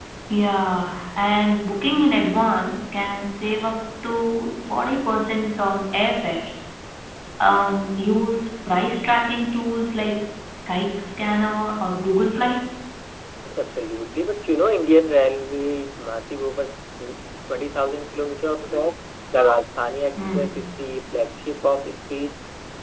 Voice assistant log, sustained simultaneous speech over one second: none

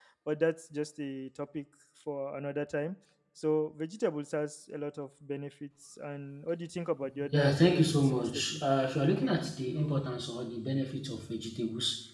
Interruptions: present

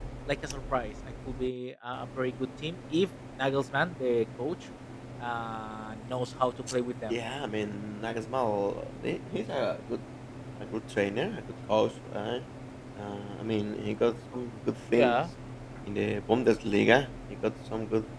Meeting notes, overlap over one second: none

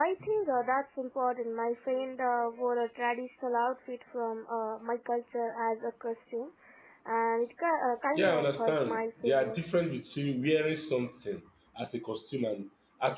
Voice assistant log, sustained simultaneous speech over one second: present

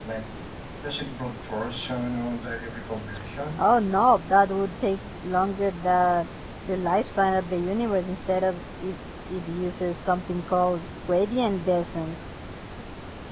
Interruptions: none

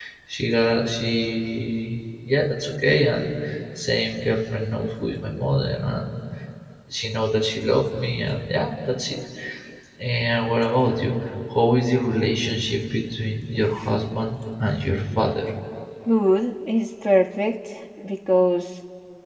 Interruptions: none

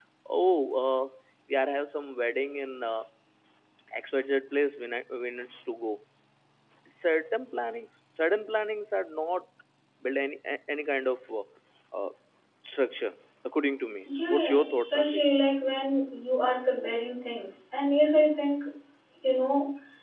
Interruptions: present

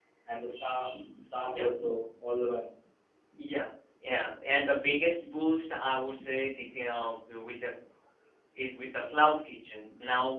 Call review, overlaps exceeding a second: none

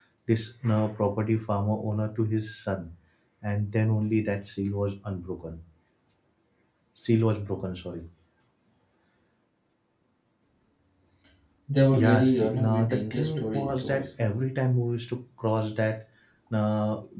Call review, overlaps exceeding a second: present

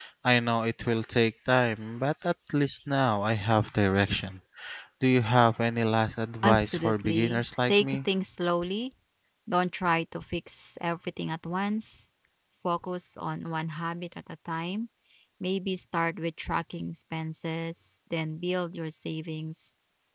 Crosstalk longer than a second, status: present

